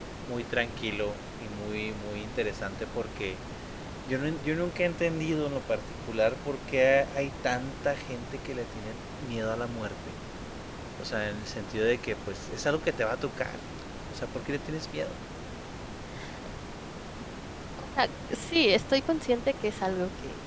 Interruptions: none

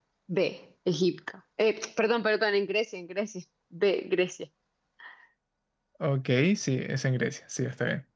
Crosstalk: none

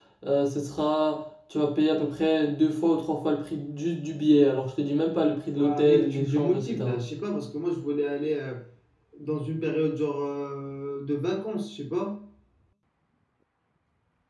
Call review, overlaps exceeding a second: present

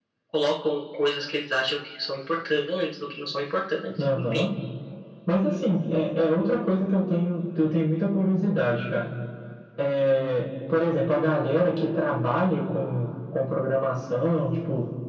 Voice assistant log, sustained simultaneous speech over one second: none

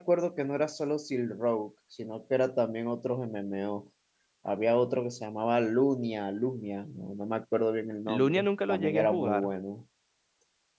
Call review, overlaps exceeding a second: present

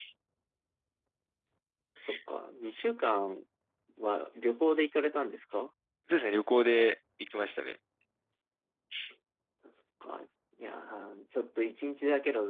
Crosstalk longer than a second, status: none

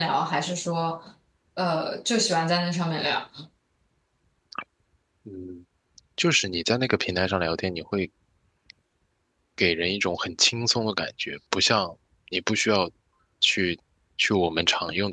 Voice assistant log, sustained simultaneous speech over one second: none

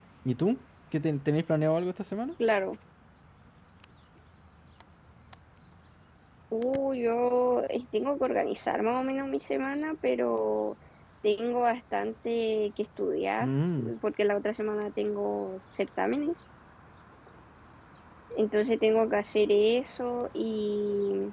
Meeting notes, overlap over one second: none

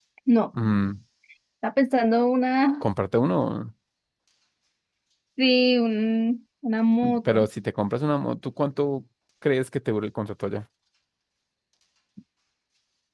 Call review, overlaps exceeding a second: none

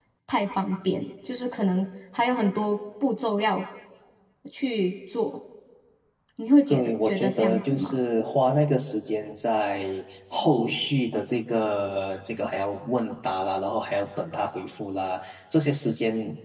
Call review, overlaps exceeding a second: present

